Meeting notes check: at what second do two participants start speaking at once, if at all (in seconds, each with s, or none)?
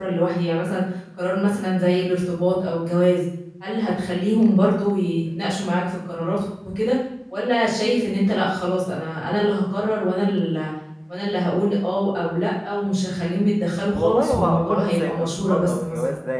13.9 s